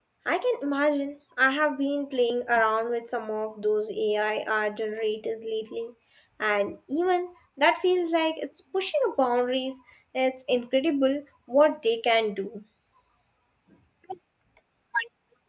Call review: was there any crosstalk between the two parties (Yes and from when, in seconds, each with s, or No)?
No